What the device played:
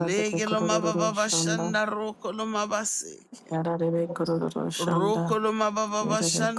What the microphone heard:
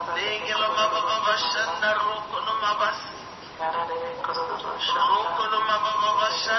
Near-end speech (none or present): none